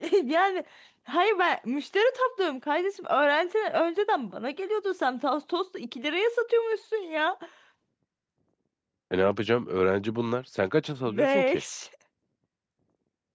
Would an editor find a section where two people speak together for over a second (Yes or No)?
No